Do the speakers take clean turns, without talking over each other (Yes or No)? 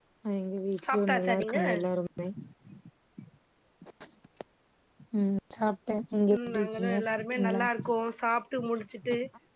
No